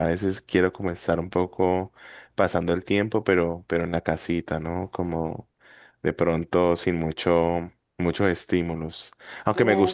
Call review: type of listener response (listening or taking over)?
listening